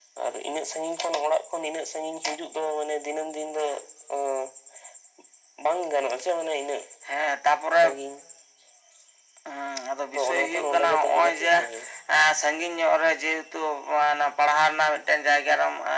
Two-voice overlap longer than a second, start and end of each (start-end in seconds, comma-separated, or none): 10.1-11.5